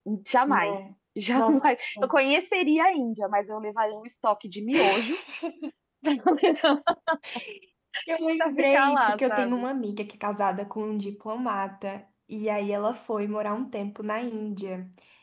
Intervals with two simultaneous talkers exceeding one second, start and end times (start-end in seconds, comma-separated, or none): 8.4-9.6